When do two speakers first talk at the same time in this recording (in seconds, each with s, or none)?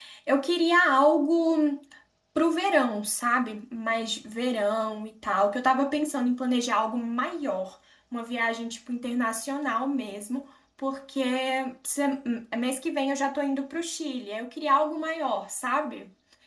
none